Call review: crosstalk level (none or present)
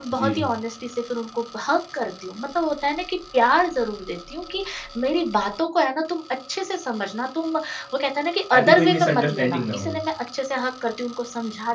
present